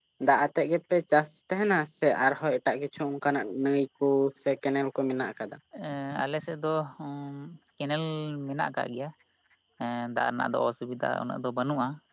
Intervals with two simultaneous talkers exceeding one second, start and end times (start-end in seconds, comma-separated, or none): none